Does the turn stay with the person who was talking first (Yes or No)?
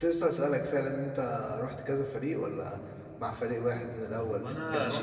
No